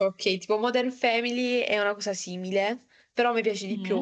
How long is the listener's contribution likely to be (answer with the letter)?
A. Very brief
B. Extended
A